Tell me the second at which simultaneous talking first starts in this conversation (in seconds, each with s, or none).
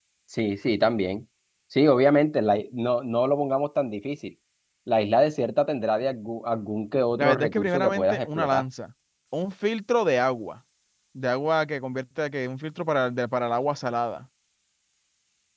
7.2 s